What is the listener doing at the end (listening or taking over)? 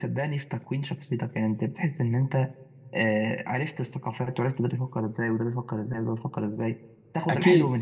listening